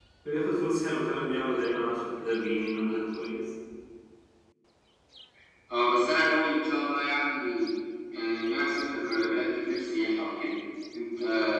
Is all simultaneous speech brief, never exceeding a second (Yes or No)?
Yes